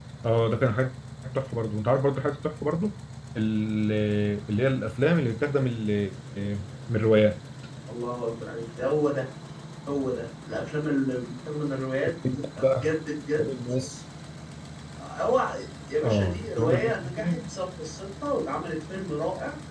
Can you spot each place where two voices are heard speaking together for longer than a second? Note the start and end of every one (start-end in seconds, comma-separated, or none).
16.0-17.4